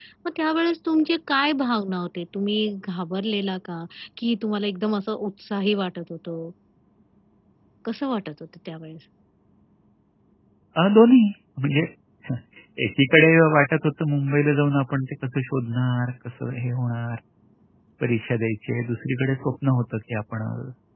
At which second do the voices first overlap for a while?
none

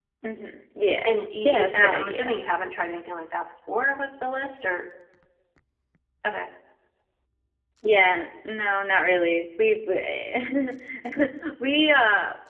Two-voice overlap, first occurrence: 1.1 s

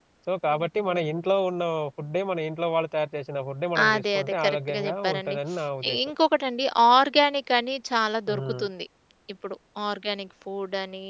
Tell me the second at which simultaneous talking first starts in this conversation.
3.8 s

